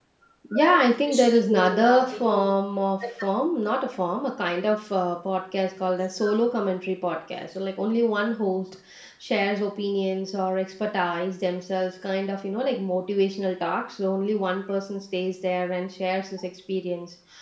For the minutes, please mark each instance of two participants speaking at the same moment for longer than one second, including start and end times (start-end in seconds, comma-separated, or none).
0.5-2.5